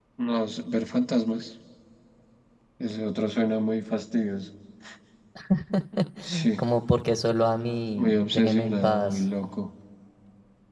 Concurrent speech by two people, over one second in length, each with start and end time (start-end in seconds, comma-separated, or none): 8.0-9.2